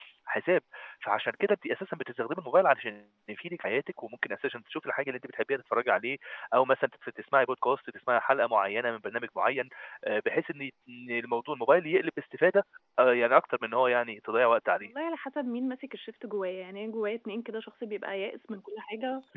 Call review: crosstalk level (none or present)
none